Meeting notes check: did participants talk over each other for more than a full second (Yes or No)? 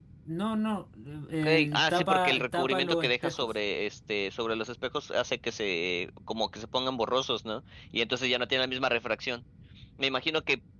Yes